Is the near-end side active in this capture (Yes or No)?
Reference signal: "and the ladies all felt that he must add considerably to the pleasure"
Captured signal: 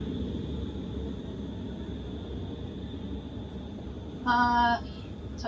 Yes